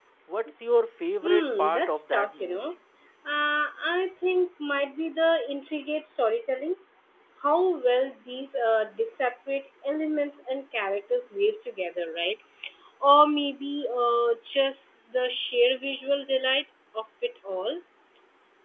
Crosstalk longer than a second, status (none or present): present